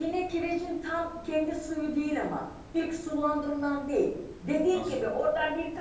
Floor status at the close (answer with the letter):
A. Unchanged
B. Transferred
A